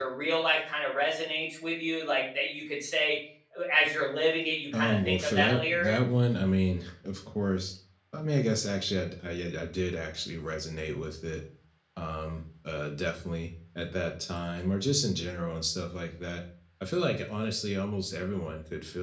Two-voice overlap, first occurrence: 4.7 s

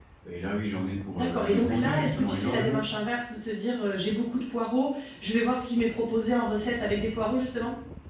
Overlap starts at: 1.1 s

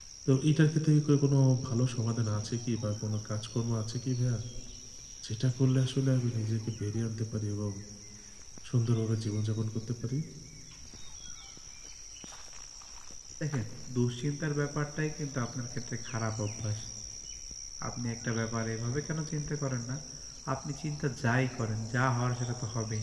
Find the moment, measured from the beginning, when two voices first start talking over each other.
none

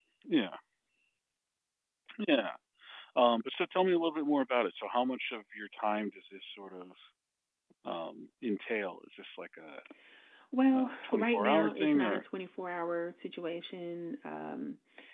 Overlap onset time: 10.8 s

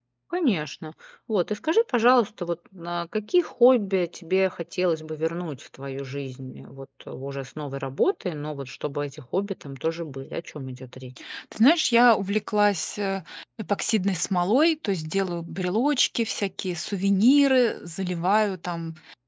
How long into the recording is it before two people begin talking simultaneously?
none

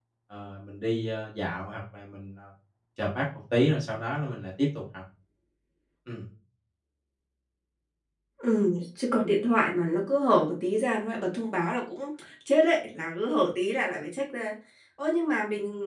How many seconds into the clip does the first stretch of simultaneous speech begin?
none

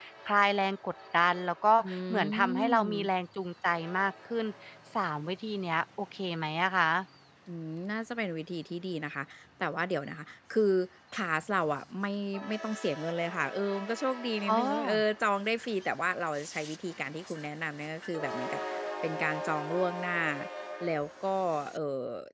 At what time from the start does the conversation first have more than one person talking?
1.8 s

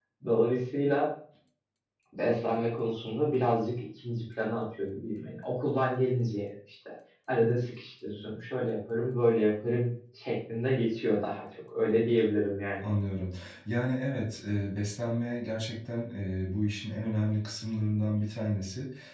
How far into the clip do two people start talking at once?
none

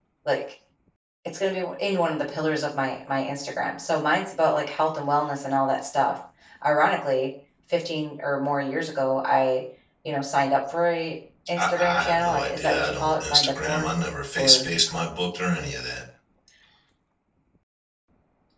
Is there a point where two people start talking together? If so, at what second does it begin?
11.6 s

